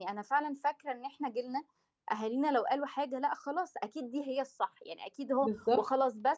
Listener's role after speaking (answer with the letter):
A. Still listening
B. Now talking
A